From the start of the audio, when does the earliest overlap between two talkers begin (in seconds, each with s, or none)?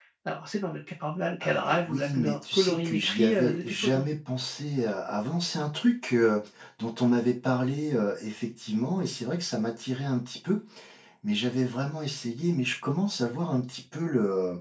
1.4 s